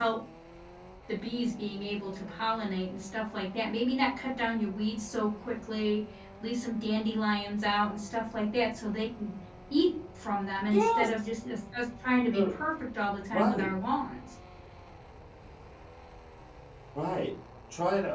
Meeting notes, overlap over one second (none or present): none